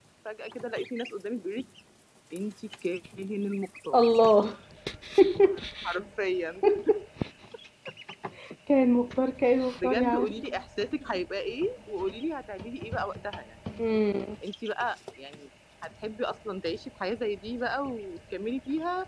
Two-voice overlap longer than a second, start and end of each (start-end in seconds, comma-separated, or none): none